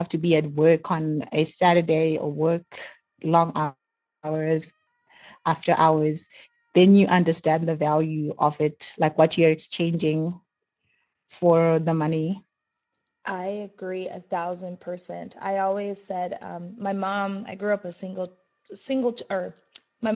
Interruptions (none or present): none